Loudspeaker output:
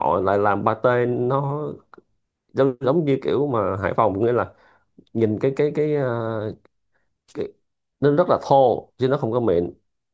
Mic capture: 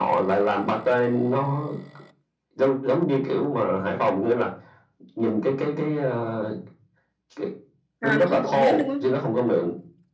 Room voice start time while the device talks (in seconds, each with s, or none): 8.0 s